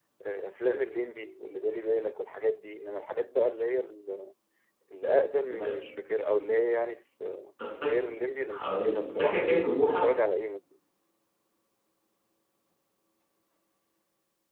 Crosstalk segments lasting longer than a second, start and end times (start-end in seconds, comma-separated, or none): 8.5-10.0